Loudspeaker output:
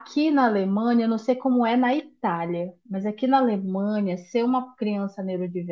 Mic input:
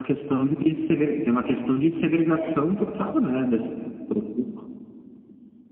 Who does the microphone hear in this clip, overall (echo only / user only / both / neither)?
user only